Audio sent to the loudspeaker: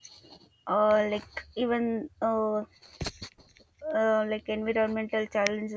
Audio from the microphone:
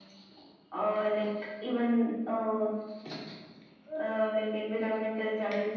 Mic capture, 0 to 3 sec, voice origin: echo only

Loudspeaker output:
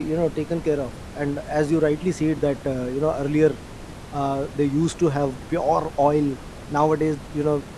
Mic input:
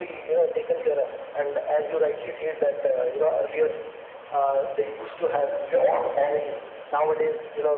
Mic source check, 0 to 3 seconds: echo only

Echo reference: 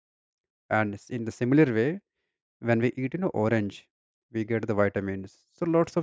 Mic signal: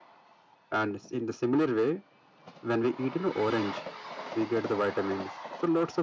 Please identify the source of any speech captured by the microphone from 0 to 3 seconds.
echo only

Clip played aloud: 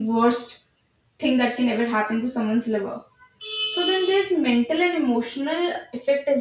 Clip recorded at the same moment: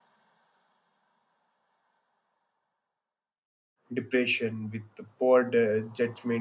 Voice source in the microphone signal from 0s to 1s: neither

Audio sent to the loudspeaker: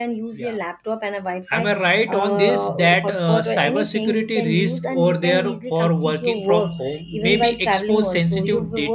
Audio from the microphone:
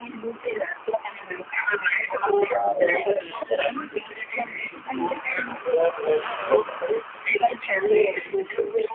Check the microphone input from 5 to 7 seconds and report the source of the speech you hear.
echo only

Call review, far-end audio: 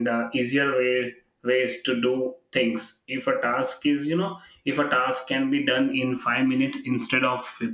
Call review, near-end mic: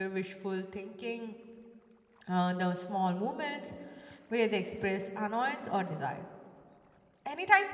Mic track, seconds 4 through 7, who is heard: user only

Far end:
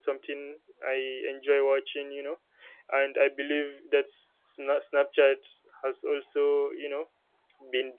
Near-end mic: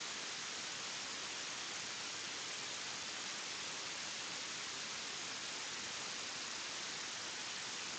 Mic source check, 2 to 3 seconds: neither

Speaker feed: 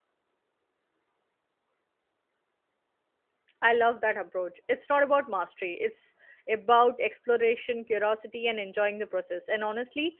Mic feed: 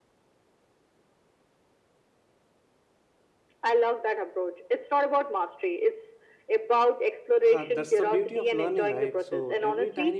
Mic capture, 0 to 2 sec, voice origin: neither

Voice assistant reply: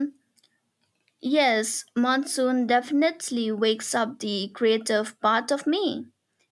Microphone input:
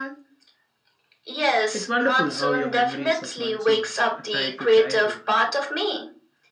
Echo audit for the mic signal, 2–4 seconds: both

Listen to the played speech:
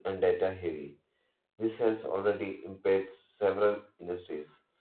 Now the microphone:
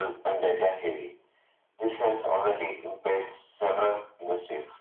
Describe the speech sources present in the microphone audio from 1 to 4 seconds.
echo only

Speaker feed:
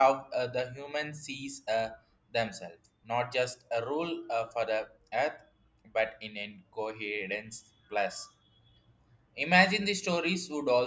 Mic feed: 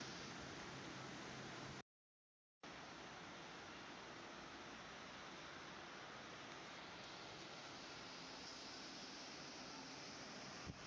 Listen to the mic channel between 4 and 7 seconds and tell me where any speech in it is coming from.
neither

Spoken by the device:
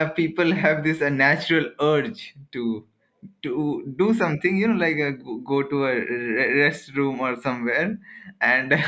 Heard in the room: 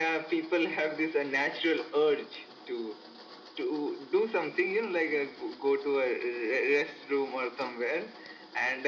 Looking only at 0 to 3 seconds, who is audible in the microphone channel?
echo only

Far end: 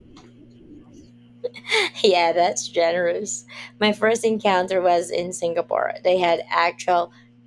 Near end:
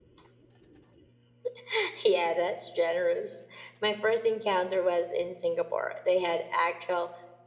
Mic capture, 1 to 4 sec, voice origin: echo only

